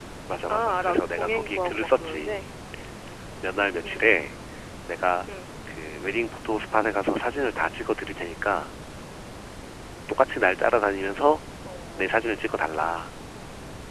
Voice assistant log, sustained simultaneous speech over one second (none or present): present